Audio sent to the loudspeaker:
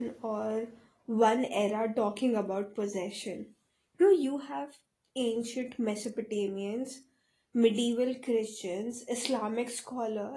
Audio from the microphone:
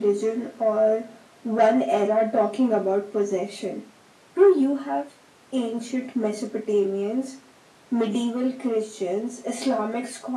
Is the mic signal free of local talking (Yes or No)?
Yes